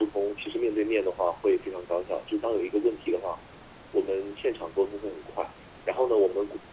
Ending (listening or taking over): listening